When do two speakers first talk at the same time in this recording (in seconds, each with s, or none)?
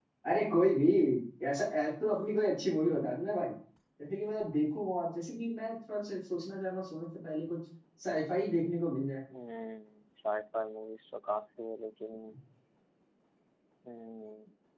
none